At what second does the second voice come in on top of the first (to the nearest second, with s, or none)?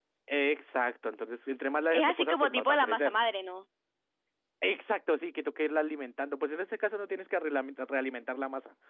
2 s